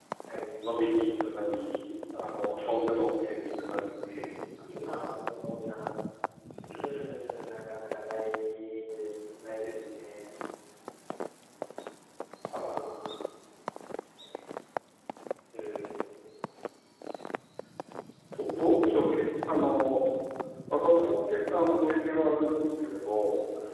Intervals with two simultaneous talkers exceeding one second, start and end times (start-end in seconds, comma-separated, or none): none